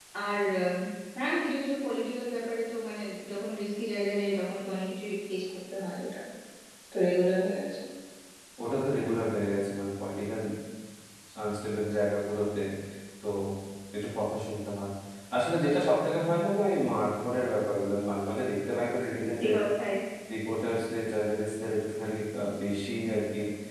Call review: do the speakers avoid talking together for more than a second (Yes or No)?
Yes